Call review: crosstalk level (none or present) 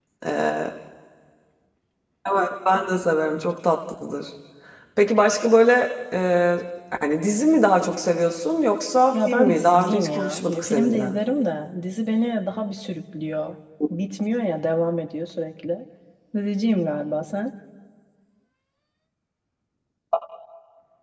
present